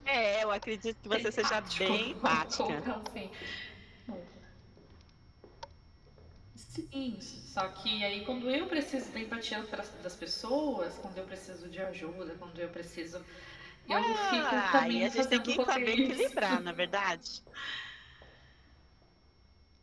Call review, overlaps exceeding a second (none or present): present